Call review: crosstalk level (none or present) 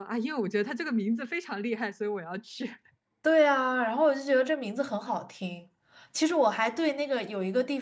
none